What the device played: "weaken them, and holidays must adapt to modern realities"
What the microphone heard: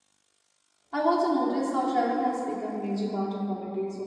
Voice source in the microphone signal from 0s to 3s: user only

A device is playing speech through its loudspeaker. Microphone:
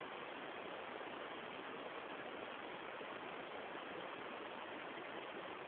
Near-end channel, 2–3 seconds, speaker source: neither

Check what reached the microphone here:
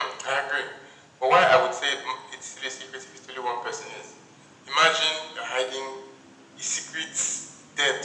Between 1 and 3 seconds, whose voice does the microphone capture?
echo only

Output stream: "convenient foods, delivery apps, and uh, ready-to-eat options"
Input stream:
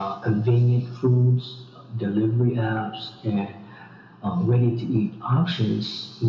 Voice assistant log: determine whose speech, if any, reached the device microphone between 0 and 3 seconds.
echo only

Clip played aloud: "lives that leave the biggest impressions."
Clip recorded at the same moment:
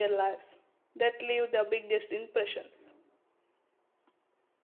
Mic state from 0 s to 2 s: echo only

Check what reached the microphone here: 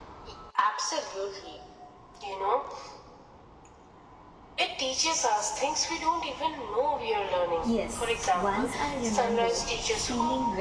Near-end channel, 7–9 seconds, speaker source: both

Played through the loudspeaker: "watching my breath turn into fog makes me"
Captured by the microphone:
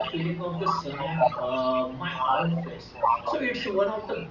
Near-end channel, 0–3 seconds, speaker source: both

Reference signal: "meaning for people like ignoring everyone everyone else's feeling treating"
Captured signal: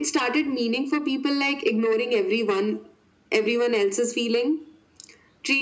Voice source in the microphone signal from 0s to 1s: echo only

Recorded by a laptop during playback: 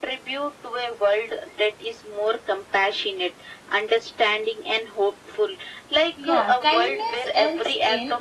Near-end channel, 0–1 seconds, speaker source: echo only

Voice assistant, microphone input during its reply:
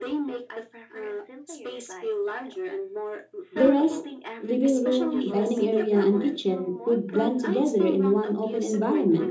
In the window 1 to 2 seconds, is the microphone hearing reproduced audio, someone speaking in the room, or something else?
echo only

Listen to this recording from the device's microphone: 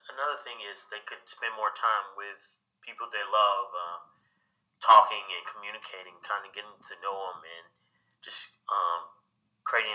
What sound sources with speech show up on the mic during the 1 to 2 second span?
echo only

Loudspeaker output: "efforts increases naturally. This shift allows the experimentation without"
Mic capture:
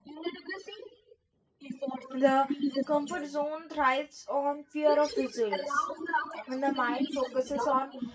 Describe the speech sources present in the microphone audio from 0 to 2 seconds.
echo only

